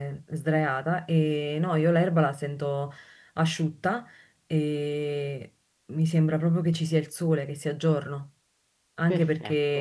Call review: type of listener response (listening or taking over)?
listening